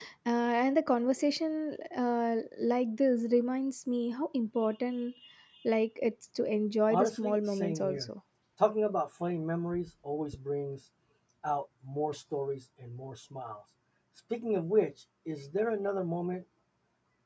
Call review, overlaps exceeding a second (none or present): present